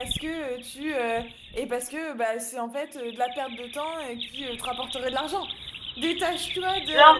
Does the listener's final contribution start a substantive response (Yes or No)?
No